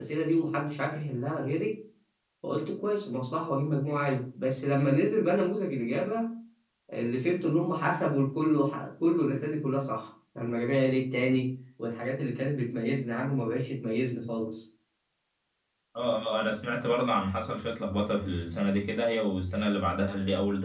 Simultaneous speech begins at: none

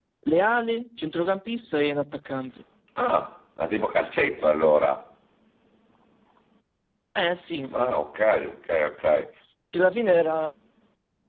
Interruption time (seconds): none

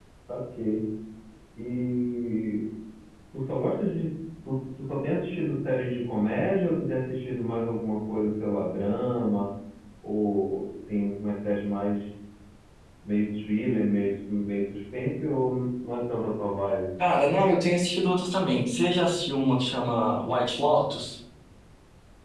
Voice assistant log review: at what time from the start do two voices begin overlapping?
none

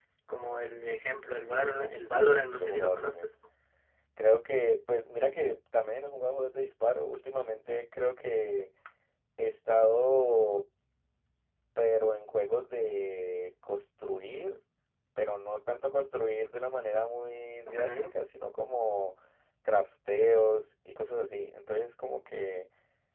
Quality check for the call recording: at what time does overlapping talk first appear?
2 s

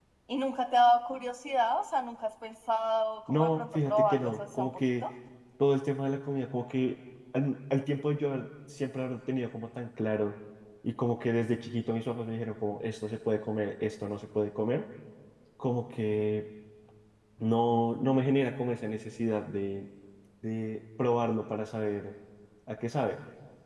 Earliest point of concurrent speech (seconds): 3 s

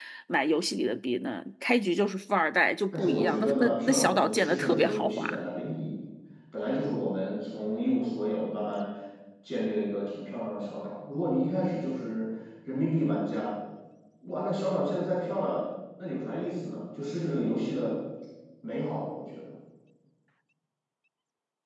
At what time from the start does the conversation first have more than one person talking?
3 s

